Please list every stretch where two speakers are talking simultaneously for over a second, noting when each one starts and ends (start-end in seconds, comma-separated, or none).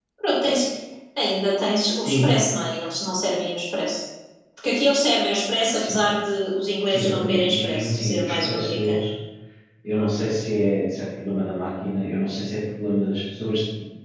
6.9-9.0